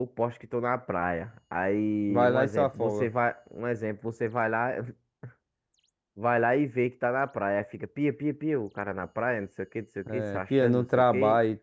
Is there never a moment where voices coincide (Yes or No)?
No